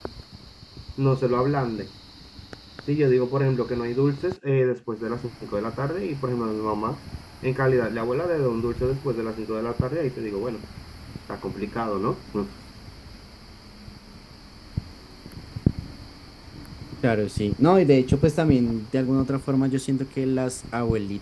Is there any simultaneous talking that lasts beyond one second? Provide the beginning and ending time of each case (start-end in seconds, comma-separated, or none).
none